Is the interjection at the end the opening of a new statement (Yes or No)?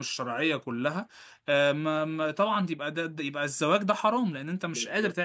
Yes